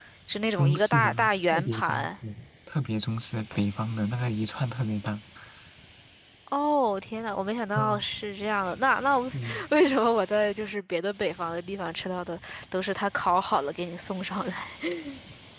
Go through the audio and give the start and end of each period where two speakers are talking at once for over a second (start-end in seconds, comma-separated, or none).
0.6-2.1